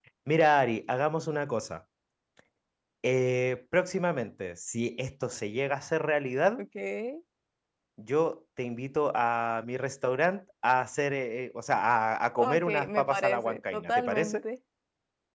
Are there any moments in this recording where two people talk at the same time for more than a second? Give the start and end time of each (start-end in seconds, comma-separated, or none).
12.4-14.4